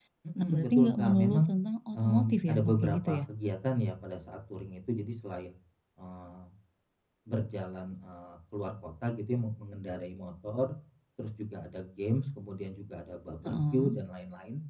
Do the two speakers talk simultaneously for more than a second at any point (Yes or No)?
Yes